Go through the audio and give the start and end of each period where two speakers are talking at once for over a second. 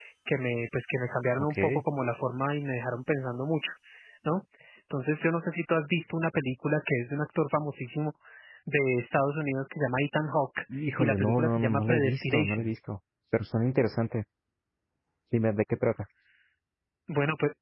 11.0-12.7

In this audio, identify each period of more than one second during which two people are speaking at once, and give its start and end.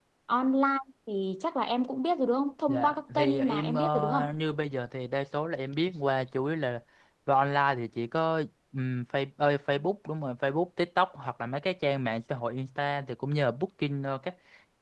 2.7-4.2

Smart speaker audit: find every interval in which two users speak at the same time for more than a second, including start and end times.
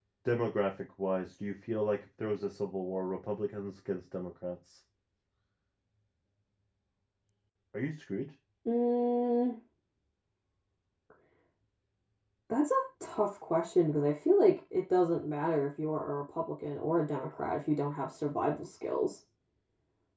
none

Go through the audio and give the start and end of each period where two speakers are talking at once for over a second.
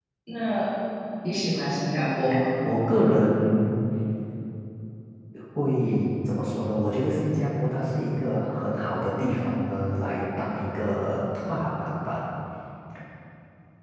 none

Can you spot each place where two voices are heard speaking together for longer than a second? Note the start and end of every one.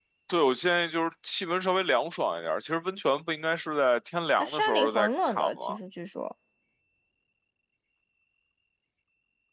4.4-5.8

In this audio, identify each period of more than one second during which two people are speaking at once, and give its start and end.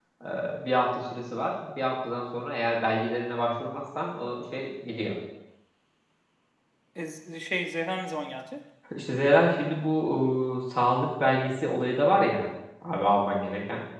none

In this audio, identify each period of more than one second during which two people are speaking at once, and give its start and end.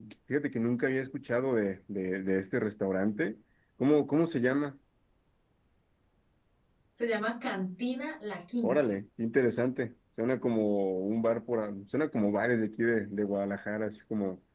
none

